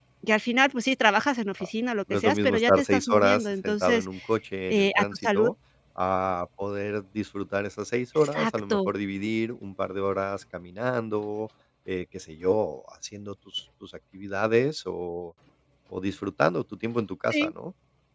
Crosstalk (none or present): present